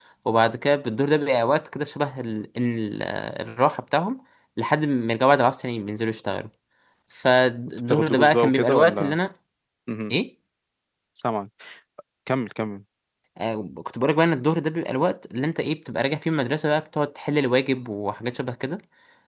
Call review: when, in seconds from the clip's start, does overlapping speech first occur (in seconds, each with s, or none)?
7.9 s